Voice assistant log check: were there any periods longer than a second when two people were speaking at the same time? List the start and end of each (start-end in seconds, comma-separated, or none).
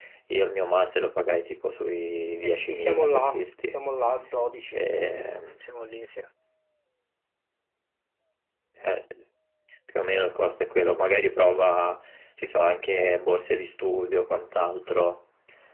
2.4-3.8